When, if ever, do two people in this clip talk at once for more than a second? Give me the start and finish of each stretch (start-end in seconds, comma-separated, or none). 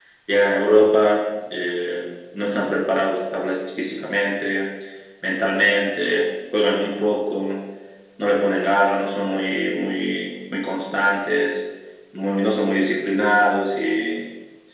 none